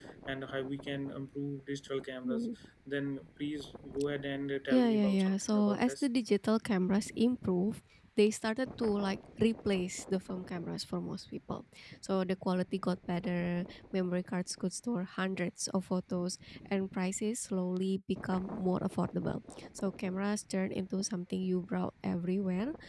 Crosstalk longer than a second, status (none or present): present